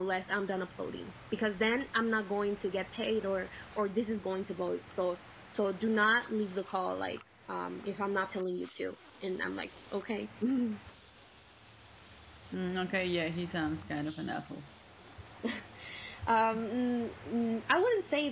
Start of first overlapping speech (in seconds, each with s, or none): none